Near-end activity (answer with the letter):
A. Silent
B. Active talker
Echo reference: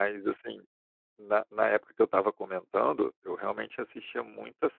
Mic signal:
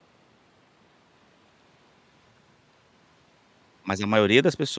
B